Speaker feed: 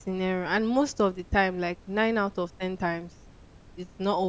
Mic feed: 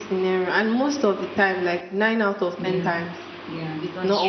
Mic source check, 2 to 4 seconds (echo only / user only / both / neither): both